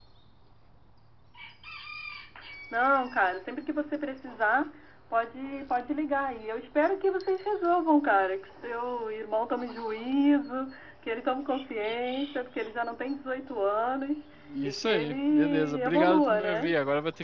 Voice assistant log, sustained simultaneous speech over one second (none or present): present